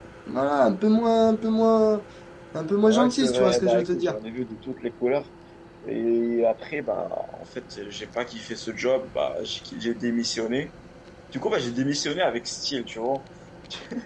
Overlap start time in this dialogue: 2.8 s

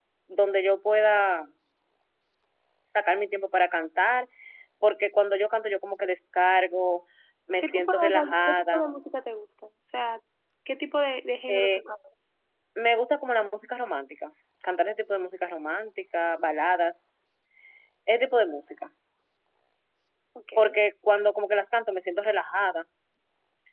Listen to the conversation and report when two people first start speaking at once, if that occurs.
7.6 s

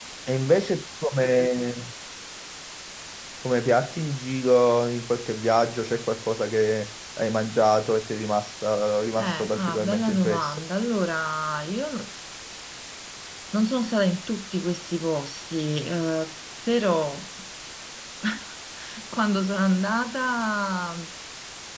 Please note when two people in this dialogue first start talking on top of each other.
9.2 s

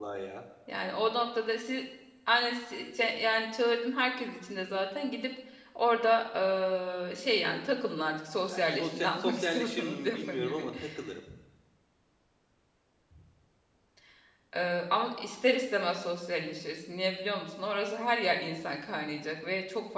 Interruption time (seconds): 8.5 s

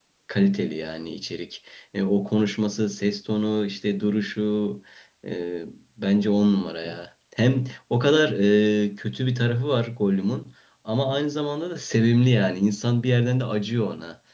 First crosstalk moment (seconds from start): none

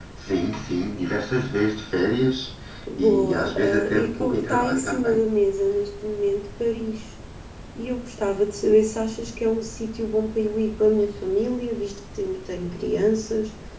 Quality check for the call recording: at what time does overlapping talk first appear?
3.0 s

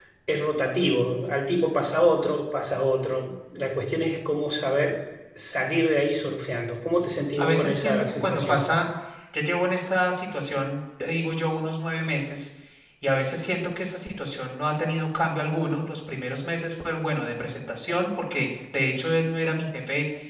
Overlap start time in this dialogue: 7.4 s

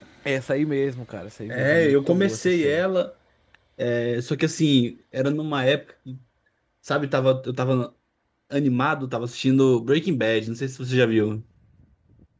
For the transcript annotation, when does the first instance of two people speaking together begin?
1.5 s

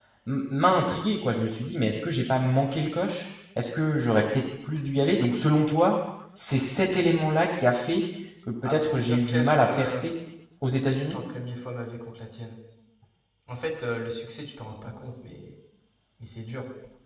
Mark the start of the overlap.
8.7 s

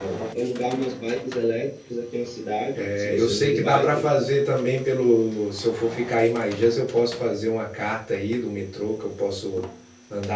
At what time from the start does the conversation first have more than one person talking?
2.7 s

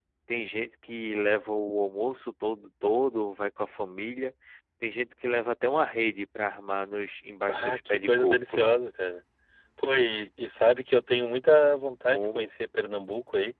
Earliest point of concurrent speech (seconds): 7.5 s

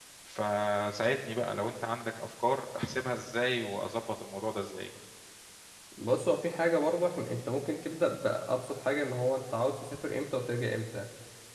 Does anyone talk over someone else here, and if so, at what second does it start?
none

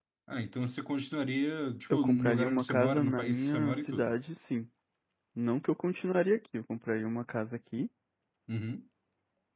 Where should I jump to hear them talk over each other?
1.9 s

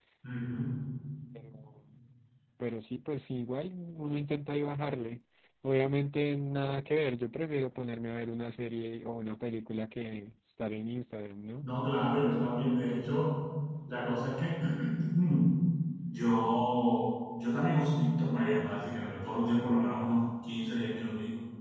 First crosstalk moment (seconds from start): none

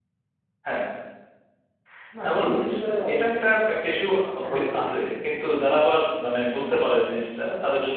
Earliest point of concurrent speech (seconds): 2.2 s

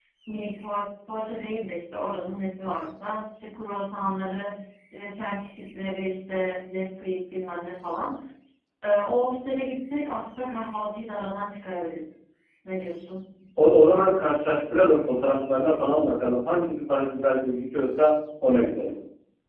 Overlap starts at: none

